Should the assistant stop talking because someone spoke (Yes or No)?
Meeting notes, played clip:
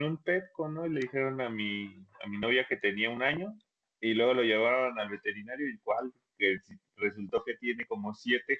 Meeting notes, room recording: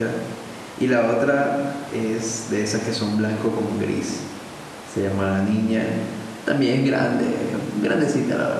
Yes